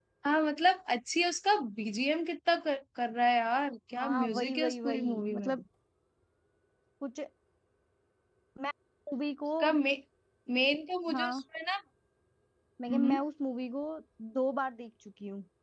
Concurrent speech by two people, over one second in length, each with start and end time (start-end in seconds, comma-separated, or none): 4.0-5.5